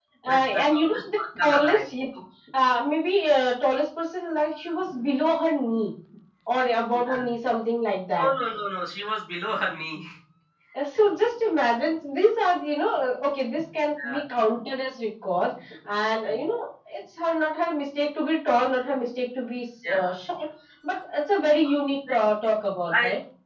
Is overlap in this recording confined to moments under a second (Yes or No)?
No